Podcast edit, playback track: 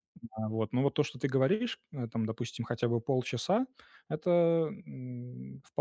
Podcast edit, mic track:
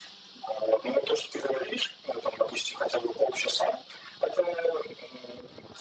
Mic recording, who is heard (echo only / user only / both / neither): echo only